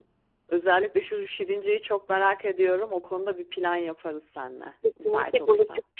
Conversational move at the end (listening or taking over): taking over